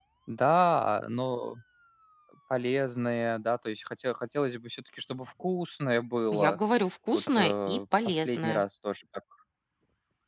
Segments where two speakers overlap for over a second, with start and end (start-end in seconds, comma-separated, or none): 7.1-8.6